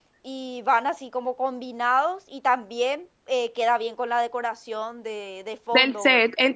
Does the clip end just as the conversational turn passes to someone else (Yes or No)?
Yes